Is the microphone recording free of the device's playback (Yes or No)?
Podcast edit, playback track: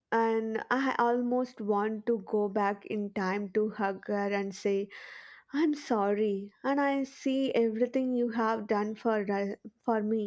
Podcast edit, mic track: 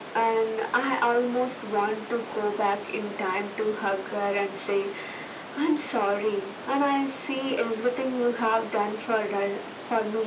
No